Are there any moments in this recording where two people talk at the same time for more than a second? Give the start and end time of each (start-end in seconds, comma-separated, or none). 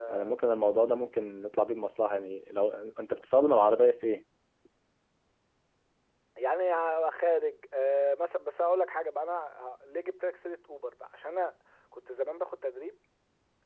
none